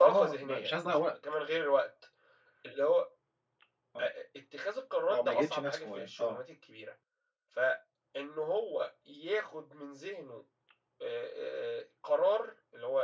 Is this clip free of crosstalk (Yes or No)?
No